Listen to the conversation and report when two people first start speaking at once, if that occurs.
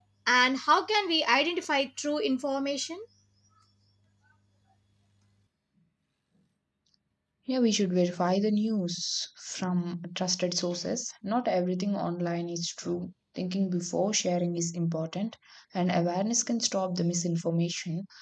none

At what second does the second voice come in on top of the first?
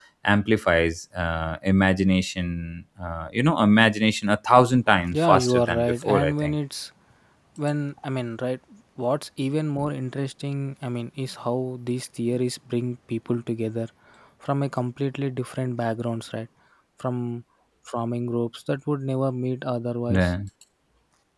5.1 s

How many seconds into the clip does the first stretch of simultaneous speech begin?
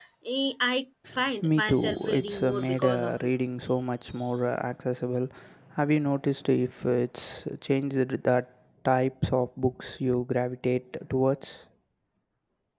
1.4 s

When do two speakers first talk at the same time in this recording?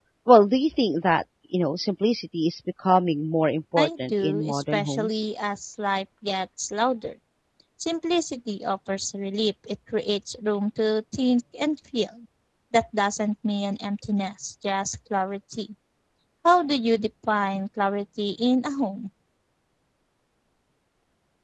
3.8 s

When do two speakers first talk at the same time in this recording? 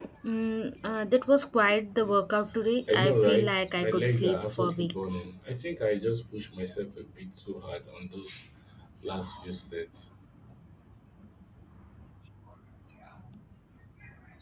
2.9 s

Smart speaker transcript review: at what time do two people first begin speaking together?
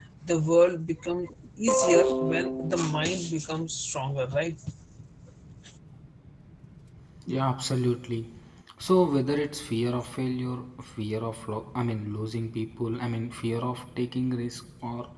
none

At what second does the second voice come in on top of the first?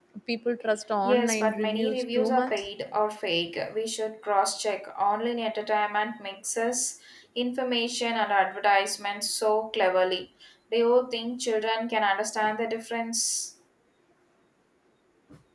1.0 s

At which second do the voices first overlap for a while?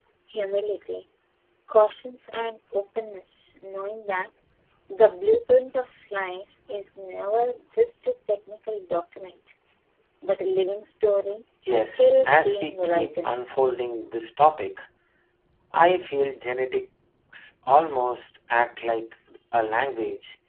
11.7 s

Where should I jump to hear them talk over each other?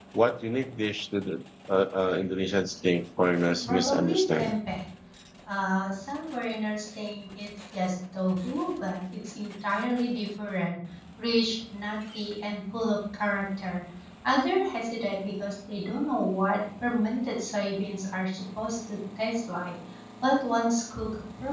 3.3 s

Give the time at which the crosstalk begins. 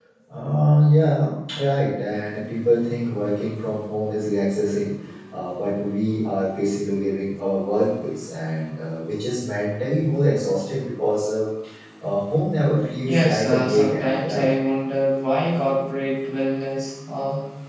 13.1 s

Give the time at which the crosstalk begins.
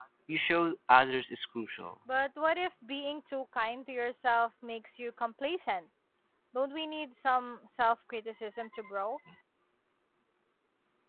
none

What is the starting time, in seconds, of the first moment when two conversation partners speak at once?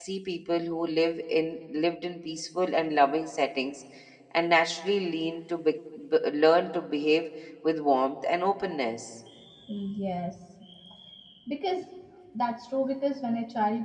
none

